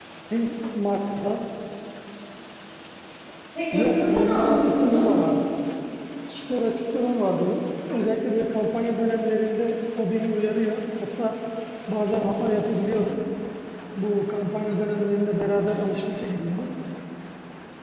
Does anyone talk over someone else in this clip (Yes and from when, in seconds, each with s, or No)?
Yes, from 3.7 s